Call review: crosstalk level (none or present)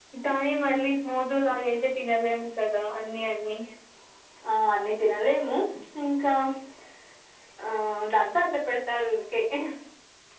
none